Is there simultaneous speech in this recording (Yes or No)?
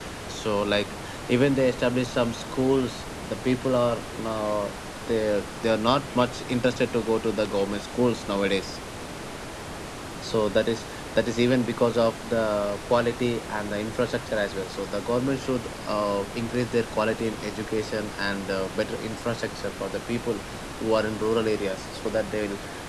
No